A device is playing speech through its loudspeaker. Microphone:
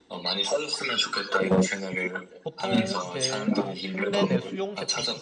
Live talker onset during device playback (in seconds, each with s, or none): 2.4 s